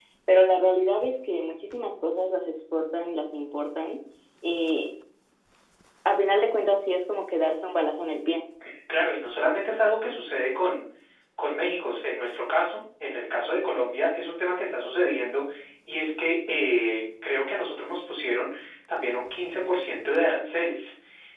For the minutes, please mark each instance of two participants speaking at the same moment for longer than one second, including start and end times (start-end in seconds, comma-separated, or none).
none